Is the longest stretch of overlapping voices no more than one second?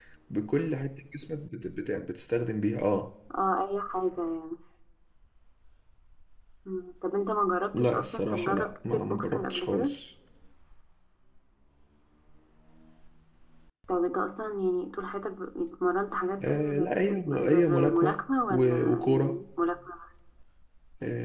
No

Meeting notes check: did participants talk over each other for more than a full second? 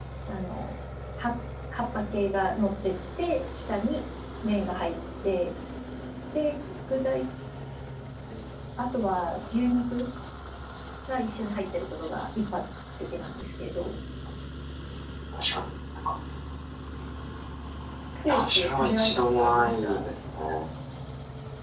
Yes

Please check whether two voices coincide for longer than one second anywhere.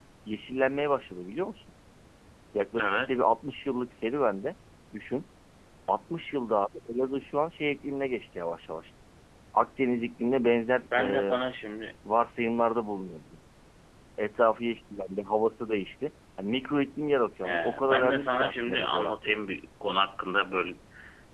Yes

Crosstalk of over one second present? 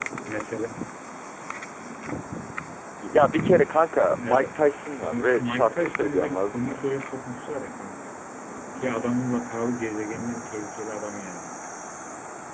Yes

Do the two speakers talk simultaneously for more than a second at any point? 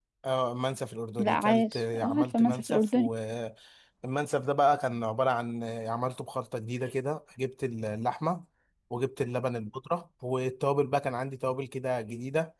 Yes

